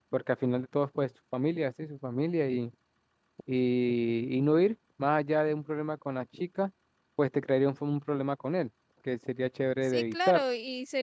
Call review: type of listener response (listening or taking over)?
taking over